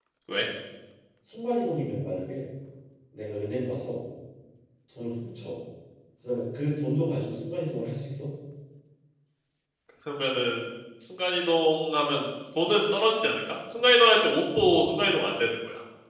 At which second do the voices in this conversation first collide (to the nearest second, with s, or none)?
none